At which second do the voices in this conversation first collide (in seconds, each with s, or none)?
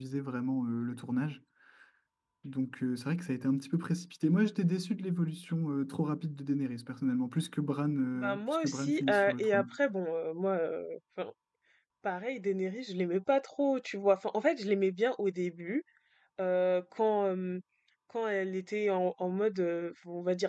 8.2 s